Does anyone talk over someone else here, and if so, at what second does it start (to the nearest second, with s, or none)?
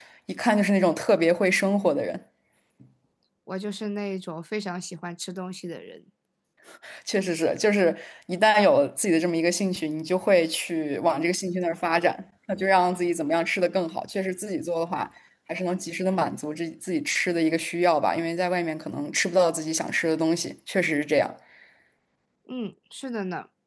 none